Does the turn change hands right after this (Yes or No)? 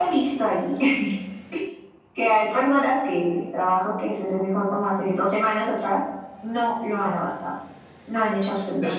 Yes